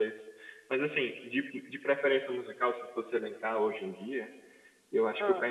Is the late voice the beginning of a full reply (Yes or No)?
No